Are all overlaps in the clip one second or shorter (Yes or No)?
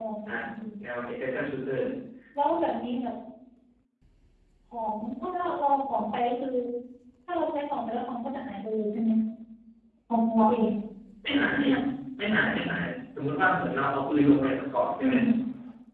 Yes